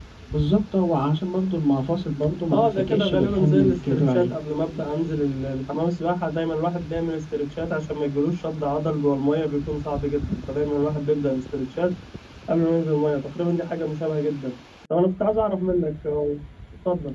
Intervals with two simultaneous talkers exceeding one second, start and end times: 2.5-4.3

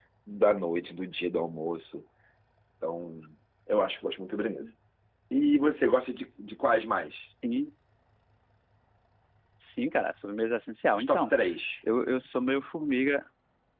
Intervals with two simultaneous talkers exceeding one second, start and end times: none

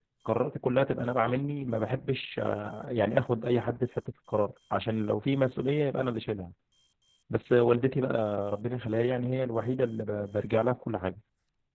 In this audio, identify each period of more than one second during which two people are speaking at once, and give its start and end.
none

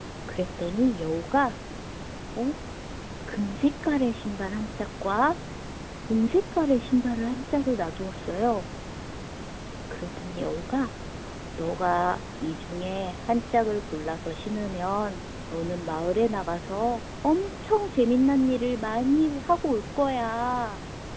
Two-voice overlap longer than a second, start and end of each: none

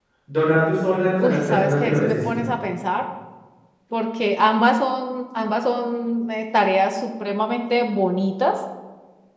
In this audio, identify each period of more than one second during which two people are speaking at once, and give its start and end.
1.2-2.4

